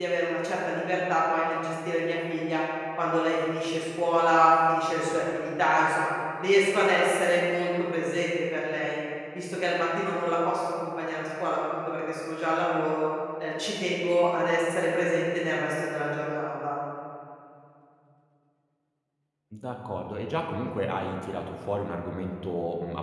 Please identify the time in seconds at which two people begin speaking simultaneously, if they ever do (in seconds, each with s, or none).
none